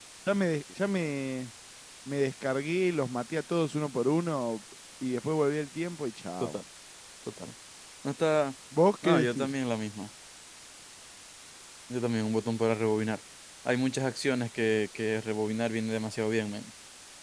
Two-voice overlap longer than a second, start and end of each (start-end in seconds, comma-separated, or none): none